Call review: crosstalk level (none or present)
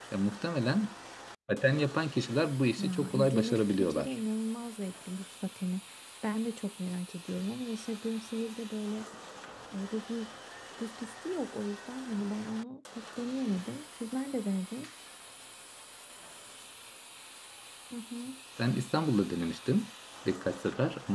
present